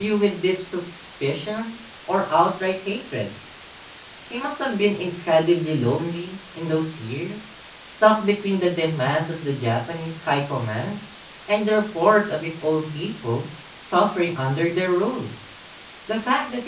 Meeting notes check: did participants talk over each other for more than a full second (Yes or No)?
No